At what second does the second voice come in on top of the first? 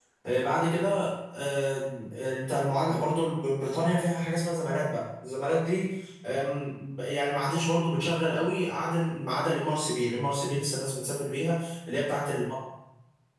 none

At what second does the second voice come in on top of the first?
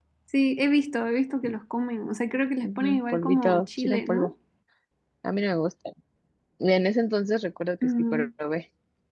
2.6 s

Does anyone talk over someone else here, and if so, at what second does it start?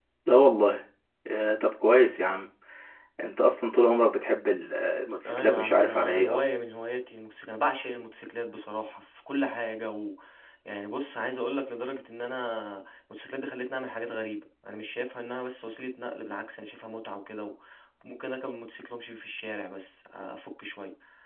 5.2 s

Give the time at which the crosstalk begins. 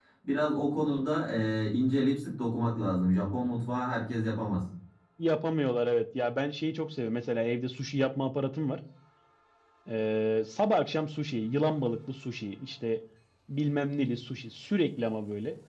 none

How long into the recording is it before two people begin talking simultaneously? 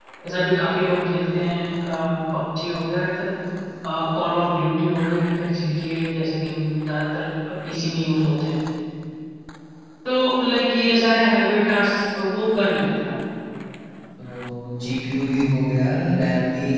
none

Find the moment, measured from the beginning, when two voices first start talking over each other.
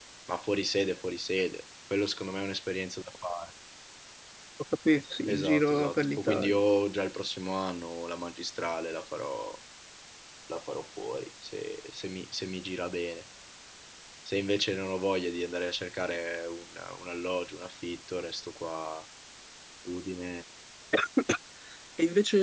5.3 s

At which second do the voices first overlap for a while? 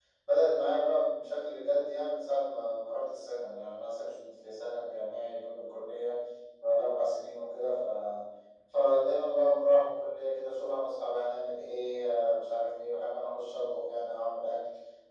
none

